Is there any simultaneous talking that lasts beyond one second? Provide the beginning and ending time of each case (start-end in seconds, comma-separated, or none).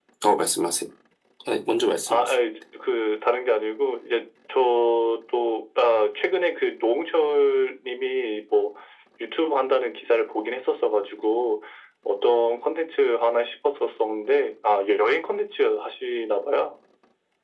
none